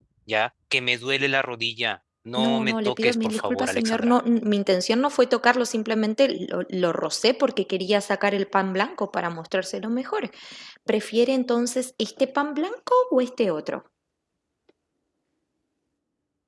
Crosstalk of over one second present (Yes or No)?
Yes